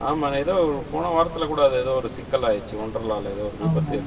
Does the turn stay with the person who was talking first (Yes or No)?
No